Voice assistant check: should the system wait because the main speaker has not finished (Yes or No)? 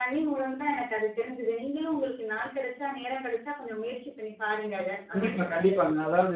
No